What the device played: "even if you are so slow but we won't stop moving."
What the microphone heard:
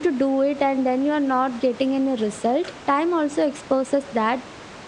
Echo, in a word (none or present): none